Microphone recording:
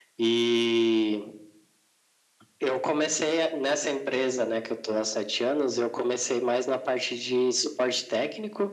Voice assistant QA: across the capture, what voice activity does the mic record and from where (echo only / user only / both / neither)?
echo only